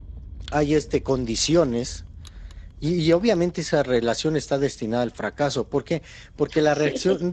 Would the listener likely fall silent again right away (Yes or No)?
Yes